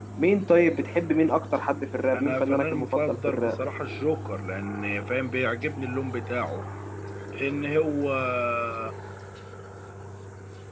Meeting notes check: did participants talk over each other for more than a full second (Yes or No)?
Yes